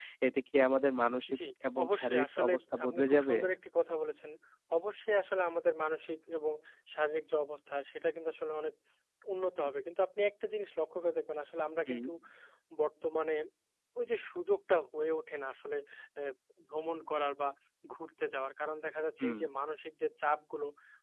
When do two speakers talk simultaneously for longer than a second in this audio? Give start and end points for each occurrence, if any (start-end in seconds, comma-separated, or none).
1.8-3.4